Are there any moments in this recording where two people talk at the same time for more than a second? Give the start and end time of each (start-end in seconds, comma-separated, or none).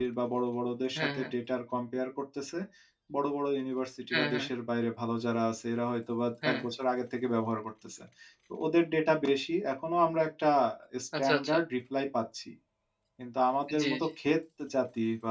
none